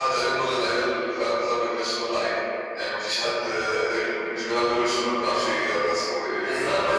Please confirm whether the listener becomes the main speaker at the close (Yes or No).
Yes